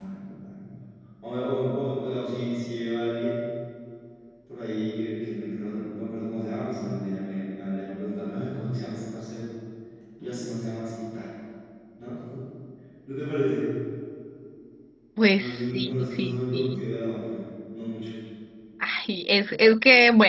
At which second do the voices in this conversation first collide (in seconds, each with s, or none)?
15.4 s